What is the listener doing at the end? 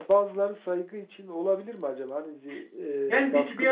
taking over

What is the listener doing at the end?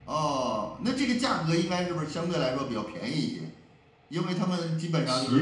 listening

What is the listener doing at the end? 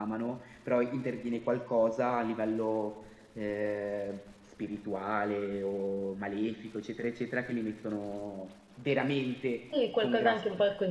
taking over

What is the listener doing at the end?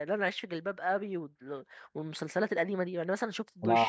taking over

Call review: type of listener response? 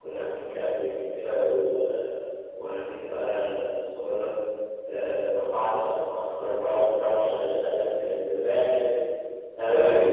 taking over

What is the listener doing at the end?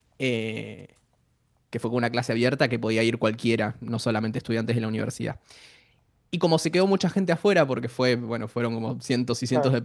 listening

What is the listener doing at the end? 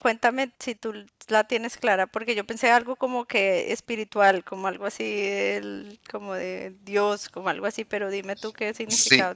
taking over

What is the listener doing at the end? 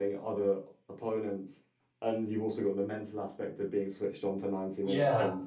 listening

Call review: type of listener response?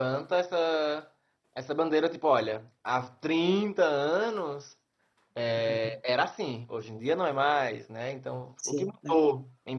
listening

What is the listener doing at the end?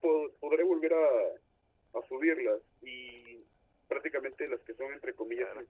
listening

